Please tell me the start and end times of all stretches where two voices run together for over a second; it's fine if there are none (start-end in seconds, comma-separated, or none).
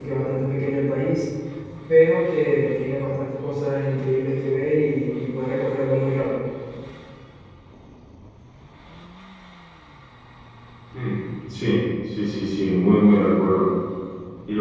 none